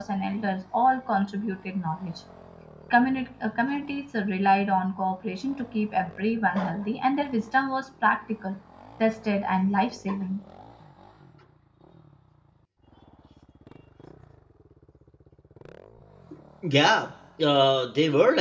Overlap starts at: none

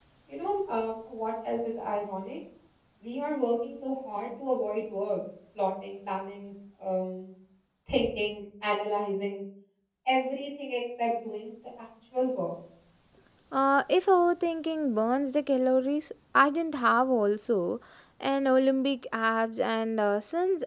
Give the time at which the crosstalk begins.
none

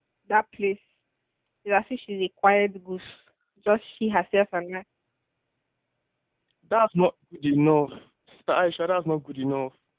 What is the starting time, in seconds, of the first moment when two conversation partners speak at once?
none

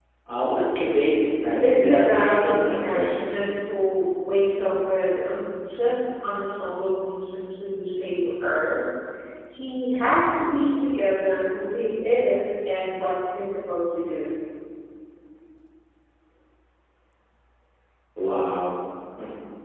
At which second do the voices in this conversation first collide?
1.6 s

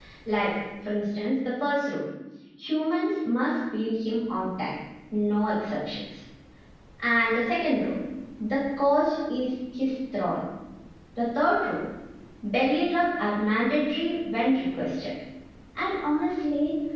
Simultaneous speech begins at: none

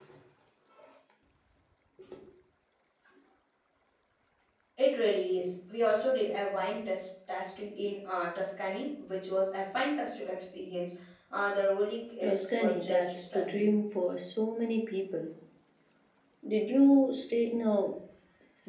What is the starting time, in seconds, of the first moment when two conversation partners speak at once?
12.2 s

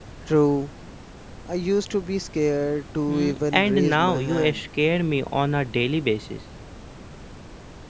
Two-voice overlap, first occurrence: 3.1 s

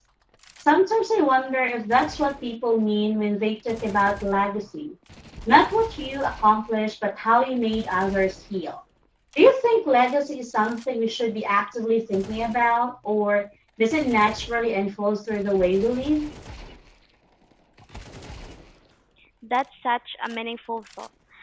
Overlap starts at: none

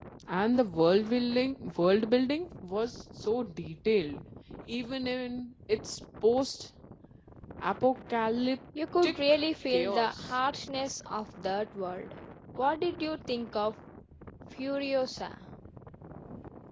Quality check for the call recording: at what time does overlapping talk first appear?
9.0 s

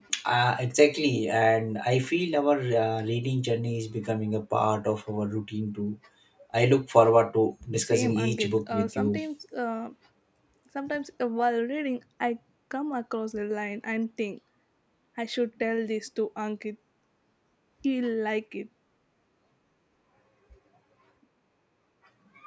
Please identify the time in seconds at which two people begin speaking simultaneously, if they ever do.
7.8 s

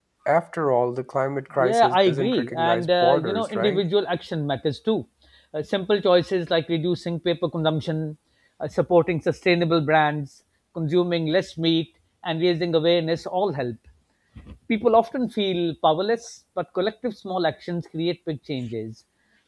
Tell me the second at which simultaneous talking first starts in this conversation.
1.6 s

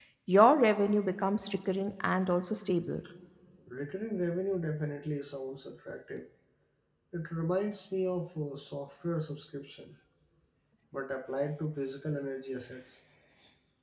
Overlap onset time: none

